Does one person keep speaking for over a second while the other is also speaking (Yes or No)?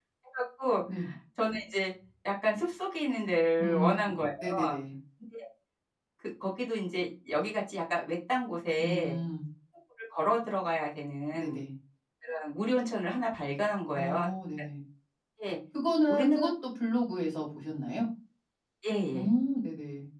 No